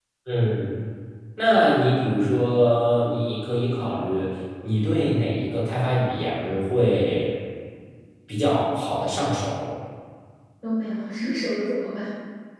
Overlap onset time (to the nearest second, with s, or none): none